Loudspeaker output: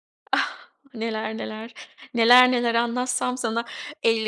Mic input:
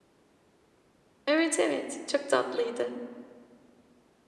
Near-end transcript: Evet, evet. Çok tatlıydı.

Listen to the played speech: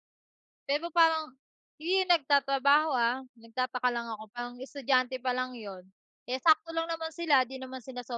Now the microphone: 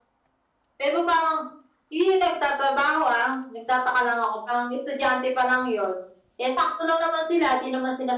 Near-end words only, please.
none

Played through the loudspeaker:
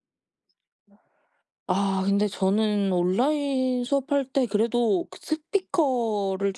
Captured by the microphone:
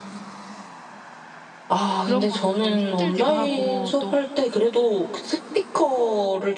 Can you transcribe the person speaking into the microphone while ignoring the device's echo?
그런 것도 좀 힘들기도 하고 또

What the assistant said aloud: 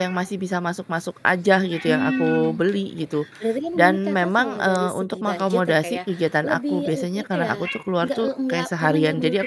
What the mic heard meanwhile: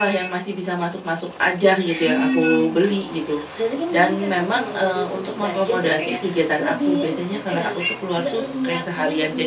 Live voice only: none

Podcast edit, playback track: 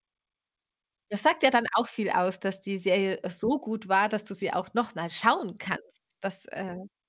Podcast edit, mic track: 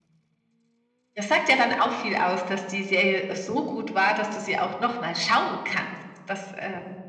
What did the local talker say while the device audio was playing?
none

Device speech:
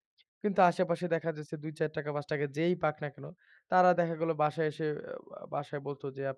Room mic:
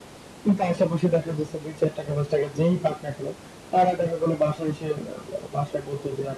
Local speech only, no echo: none

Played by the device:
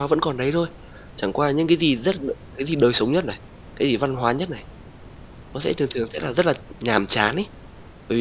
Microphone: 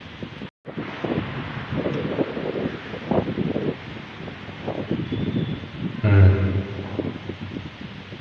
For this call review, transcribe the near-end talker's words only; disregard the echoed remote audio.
Ừm.

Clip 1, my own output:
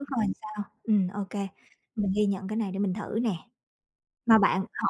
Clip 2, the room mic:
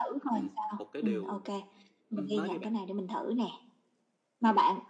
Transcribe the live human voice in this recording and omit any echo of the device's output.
Ừm, một cái điều ừm, nói đi bạn.

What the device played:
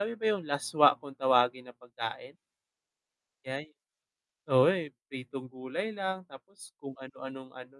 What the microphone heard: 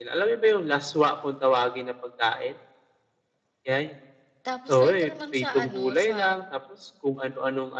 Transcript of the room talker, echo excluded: tapos dito naman sa, ano, sa

